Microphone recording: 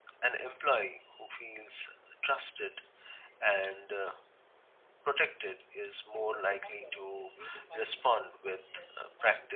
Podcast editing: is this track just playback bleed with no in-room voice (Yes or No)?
No